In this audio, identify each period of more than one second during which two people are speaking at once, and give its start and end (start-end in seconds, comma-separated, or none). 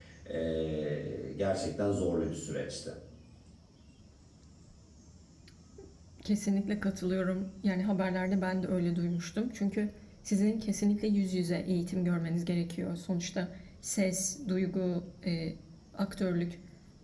none